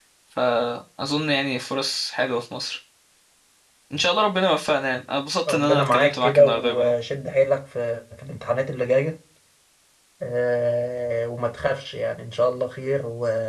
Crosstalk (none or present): present